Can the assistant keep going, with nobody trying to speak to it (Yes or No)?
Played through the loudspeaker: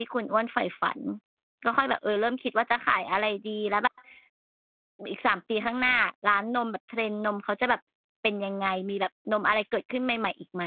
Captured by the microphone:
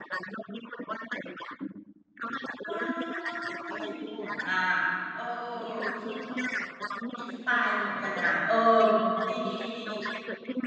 No